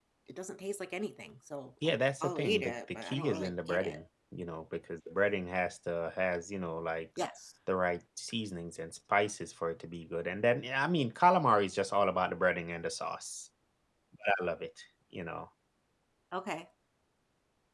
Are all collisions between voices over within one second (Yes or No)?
No